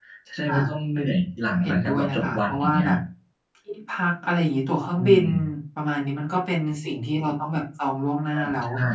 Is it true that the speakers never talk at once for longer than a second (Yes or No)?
No